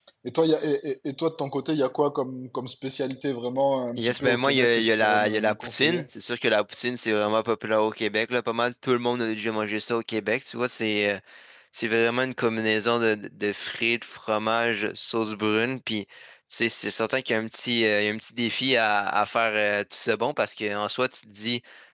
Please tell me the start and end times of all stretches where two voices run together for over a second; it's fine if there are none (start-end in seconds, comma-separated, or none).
4.0-6.0